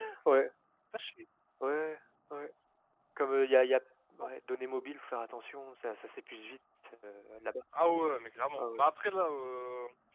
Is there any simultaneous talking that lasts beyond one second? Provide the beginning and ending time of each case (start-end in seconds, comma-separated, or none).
none